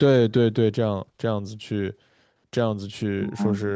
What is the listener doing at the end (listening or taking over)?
listening